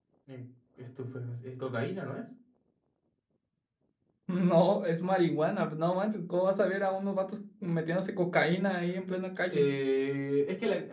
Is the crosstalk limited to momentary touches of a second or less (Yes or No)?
Yes